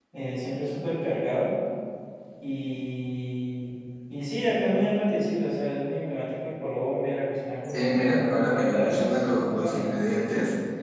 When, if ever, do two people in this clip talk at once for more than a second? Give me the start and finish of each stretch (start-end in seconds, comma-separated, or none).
7.6-9.9